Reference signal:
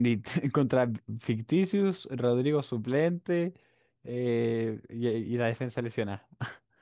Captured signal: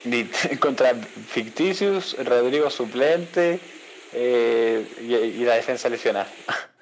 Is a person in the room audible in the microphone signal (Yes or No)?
No